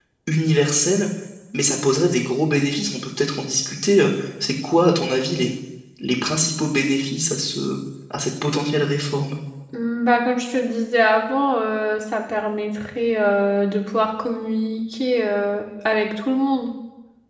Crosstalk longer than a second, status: none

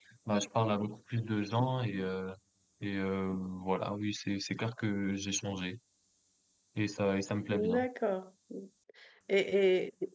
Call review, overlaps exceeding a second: none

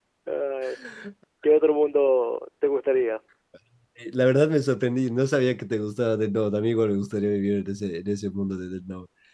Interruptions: none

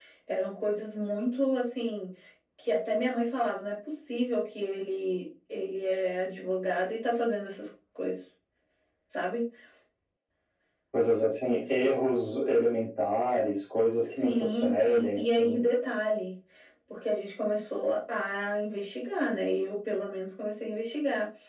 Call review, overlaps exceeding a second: present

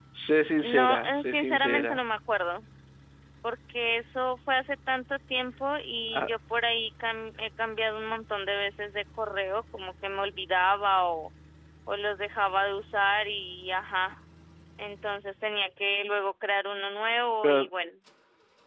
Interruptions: present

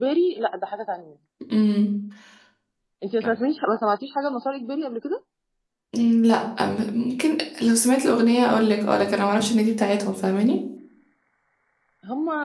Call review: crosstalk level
none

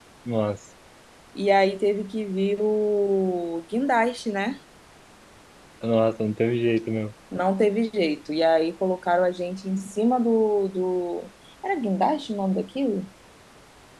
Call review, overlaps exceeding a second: none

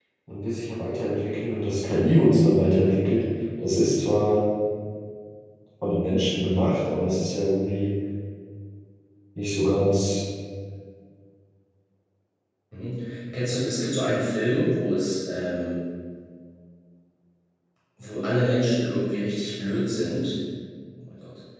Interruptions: none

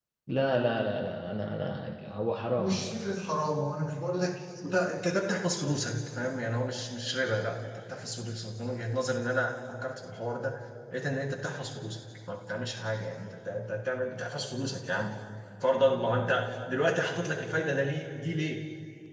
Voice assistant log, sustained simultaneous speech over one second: none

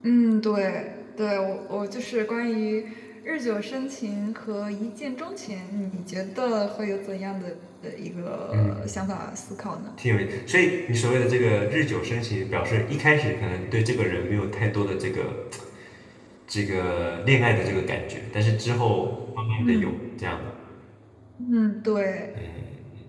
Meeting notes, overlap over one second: none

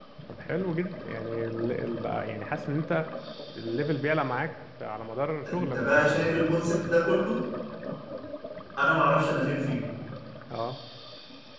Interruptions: present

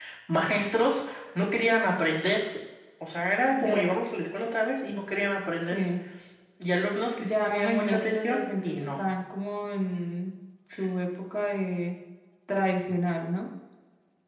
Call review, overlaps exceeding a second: present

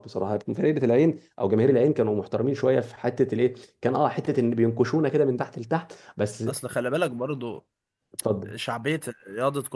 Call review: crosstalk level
none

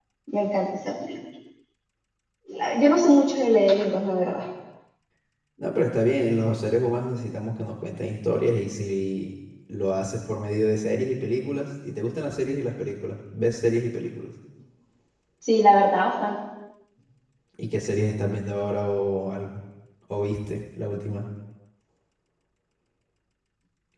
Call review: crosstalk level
none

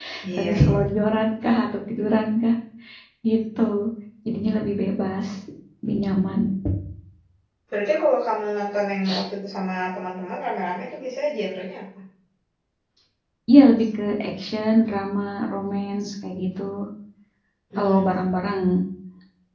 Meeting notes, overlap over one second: none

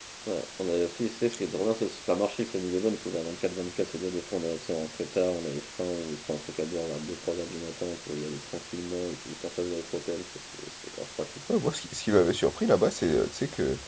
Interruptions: none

